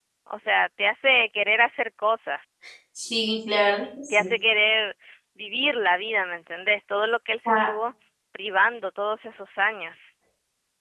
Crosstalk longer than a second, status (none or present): none